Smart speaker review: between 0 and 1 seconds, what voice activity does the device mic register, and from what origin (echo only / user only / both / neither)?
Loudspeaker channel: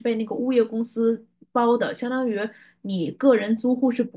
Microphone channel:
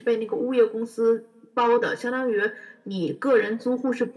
echo only